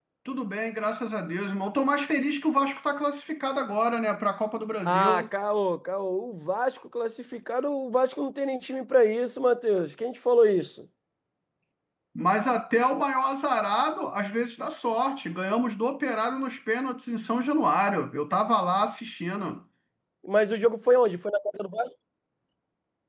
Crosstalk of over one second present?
No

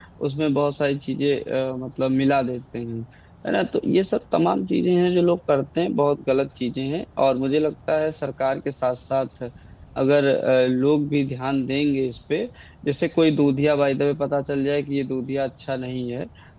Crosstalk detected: No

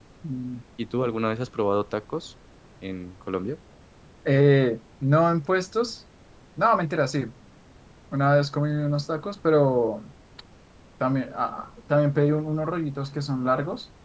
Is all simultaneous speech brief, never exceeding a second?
Yes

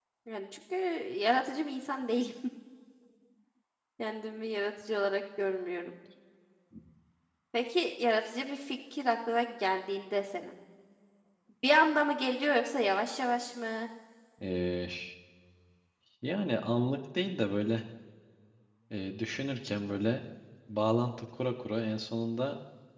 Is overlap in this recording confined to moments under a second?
Yes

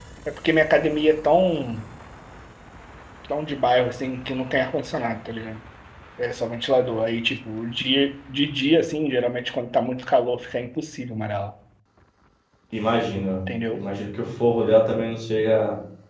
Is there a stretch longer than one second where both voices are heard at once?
No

